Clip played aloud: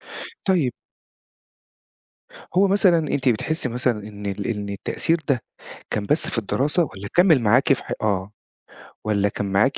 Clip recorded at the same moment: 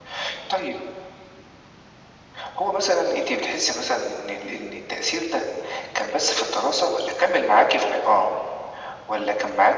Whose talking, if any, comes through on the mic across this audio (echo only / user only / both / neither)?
echo only